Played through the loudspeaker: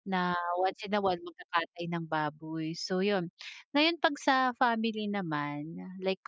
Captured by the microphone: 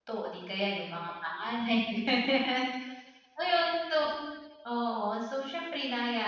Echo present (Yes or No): No